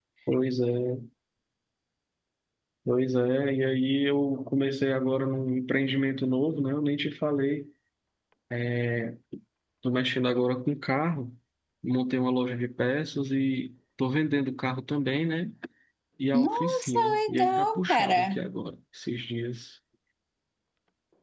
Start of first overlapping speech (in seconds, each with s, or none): 16.3 s